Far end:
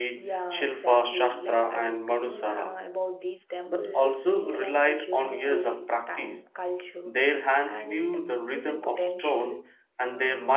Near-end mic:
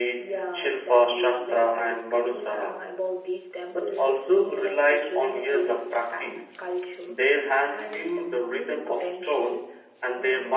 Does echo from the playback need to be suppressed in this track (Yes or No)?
Yes